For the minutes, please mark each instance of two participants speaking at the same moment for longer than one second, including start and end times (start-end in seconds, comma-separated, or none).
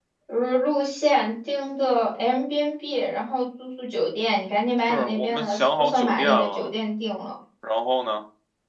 4.9-6.7